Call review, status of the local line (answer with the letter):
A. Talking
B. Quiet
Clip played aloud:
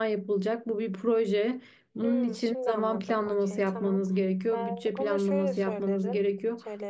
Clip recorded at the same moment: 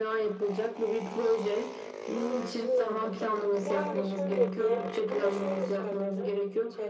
A